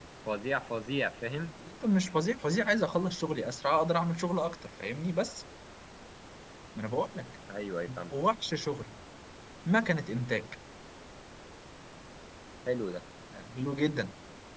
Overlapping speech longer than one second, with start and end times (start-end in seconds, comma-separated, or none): none